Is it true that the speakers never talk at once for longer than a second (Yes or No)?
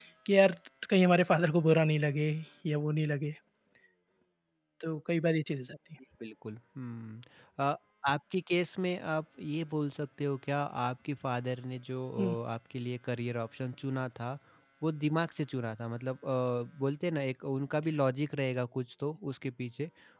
Yes